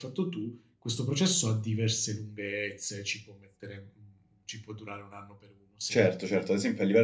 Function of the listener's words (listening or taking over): taking over